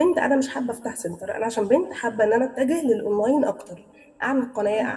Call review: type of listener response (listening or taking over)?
listening